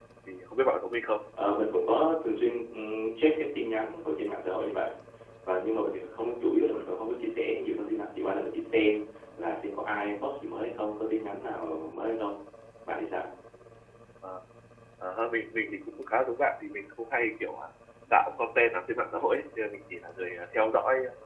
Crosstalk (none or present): none